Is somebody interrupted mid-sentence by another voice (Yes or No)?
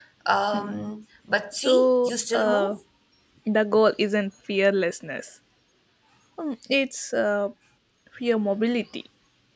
Yes